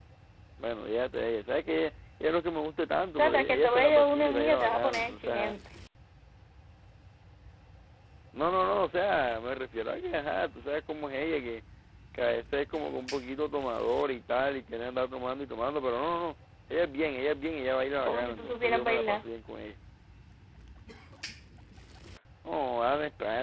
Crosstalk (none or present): present